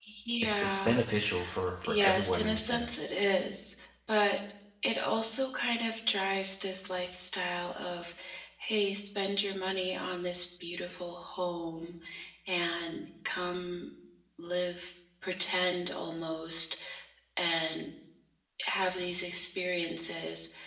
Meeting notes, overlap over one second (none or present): present